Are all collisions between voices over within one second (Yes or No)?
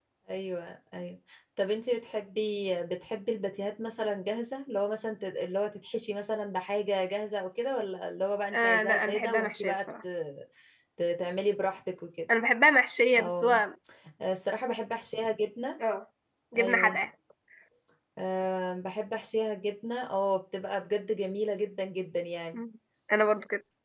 No